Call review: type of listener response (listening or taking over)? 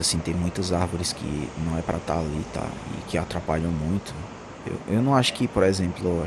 listening